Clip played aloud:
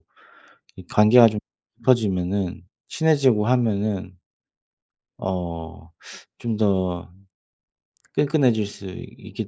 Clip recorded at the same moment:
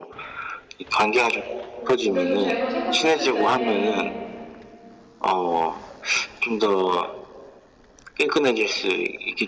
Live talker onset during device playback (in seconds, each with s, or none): 1.8 s